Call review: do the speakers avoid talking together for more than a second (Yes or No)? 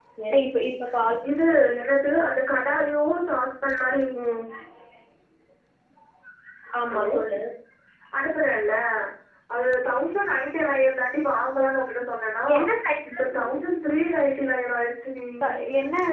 Yes